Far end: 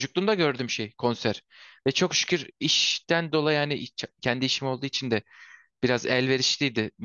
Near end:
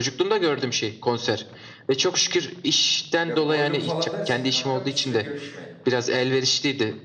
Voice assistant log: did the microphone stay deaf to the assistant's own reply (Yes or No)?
No